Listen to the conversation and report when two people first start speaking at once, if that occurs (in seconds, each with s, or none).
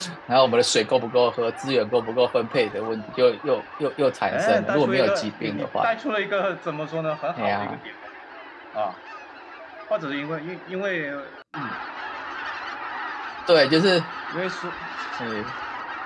4.3 s